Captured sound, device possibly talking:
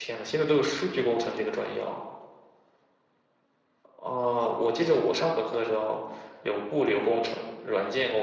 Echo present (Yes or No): No